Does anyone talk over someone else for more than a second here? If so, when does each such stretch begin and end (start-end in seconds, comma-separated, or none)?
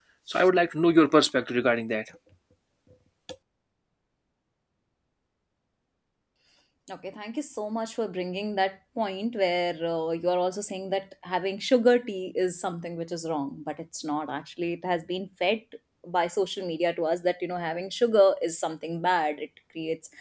none